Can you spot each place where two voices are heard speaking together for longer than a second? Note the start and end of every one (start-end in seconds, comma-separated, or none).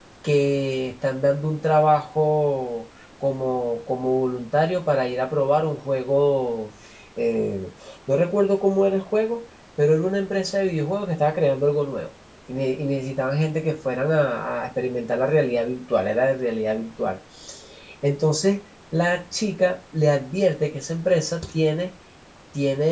none